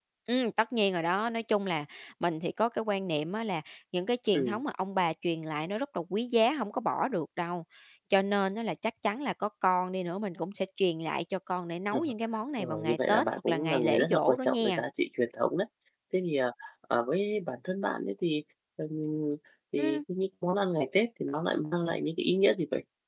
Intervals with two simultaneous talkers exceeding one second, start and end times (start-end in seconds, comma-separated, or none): 12.6-14.8